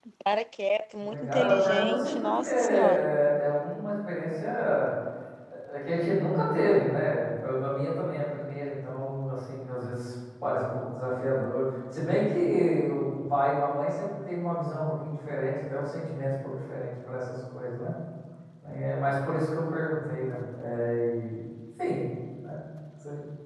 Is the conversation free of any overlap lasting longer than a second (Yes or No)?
No